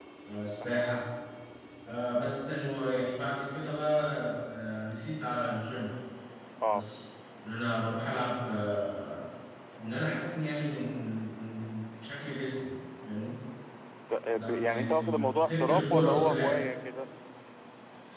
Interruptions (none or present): present